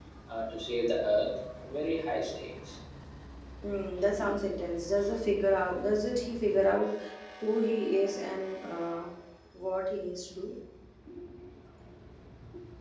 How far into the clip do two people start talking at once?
none

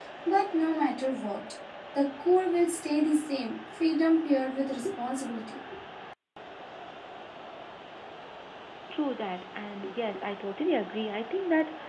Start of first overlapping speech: none

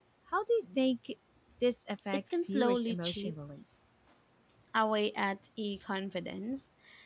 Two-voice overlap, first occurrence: 2.1 s

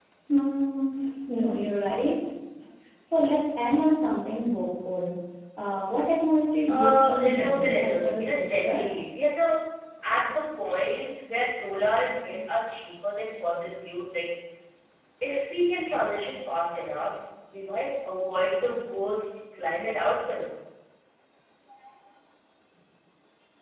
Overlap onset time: 6.7 s

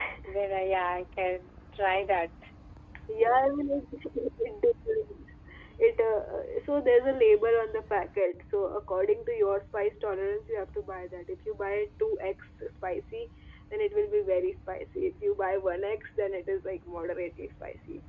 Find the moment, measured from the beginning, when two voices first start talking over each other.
none

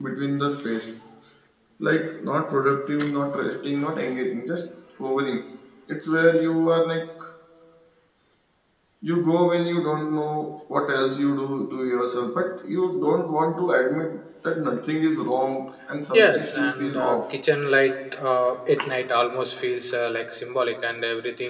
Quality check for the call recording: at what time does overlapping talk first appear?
16.1 s

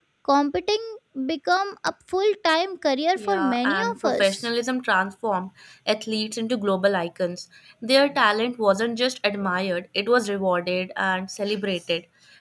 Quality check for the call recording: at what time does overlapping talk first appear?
3.2 s

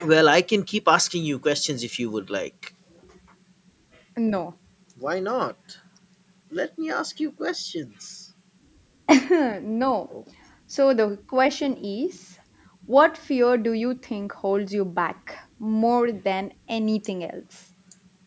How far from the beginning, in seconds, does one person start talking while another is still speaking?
none

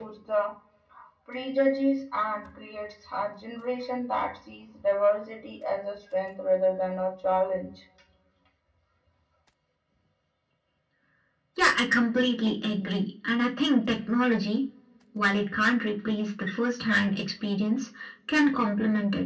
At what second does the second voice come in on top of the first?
none

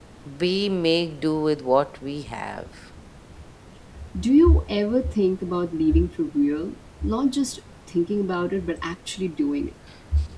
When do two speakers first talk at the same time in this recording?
none

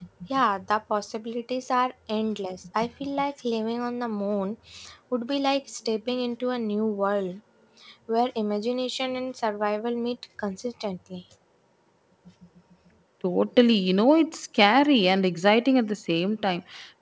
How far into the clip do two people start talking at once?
none

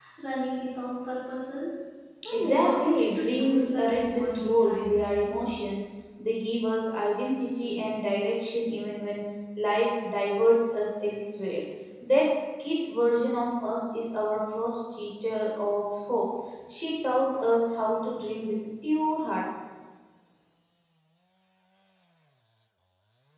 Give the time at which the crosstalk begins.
2.3 s

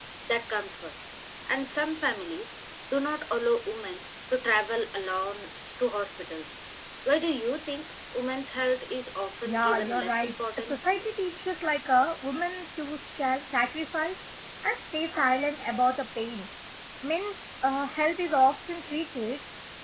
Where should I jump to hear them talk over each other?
9.4 s

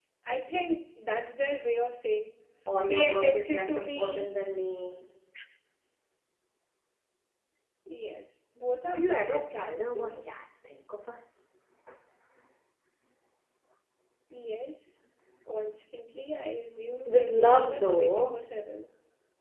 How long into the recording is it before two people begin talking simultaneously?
2.9 s

